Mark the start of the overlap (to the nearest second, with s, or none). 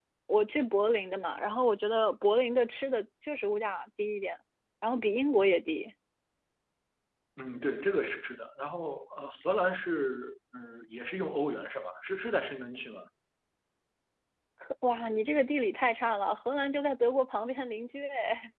none